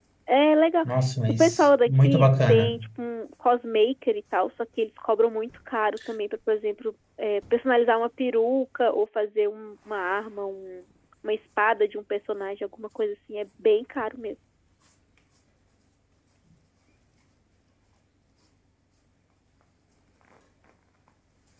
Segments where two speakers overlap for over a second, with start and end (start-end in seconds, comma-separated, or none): 1.3-2.7